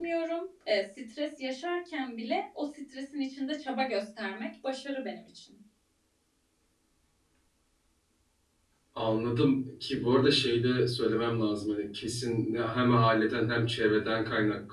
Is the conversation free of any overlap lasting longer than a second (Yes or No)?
Yes